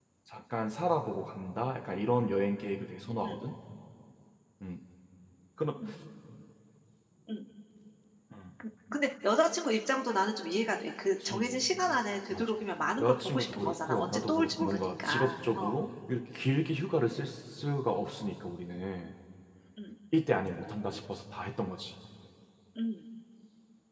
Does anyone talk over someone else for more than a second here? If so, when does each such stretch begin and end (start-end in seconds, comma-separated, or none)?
13.0-15.8